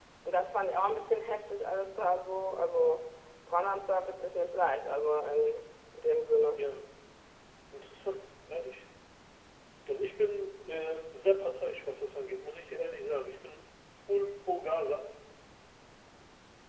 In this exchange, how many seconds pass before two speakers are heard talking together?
none

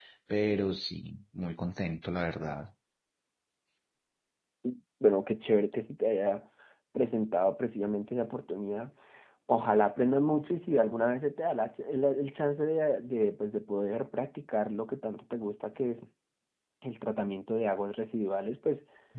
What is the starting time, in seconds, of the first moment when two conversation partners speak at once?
none

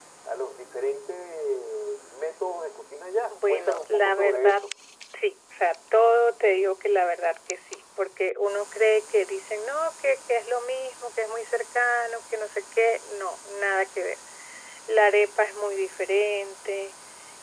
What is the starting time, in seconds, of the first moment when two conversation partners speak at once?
3 s

